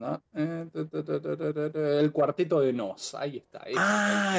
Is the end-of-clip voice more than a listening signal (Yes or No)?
Yes